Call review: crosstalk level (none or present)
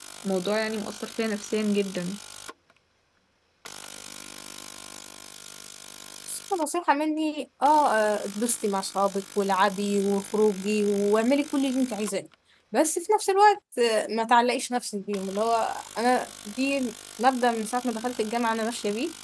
none